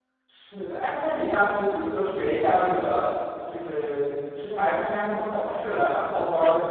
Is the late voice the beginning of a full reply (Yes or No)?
Yes